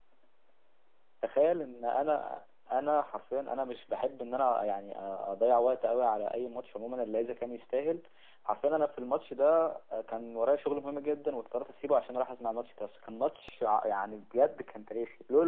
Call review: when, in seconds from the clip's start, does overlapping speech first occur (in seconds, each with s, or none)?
none